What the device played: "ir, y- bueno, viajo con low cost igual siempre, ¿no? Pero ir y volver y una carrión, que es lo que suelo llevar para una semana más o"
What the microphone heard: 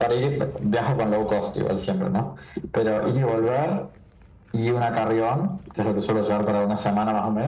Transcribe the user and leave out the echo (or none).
none